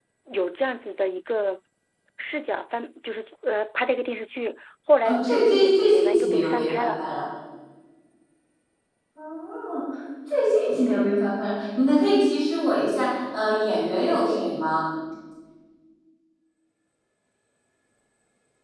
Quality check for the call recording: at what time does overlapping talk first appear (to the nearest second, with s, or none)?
5 s